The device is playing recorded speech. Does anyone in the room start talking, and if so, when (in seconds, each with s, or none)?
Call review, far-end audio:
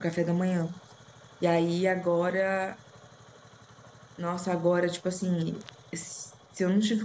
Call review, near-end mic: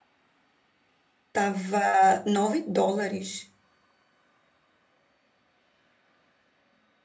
1.3 s